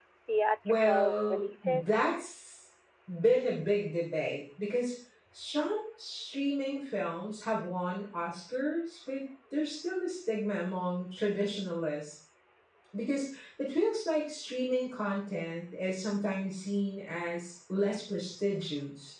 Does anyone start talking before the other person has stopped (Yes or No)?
Yes